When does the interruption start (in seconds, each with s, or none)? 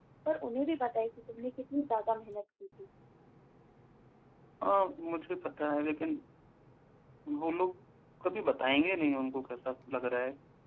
none